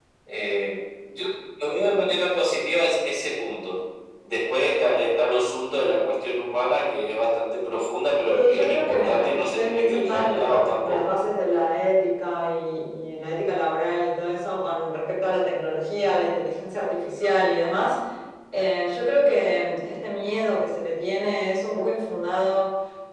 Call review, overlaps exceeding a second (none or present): present